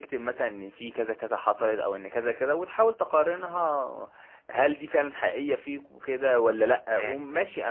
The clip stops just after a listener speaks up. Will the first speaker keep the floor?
Yes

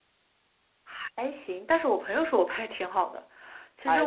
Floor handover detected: Yes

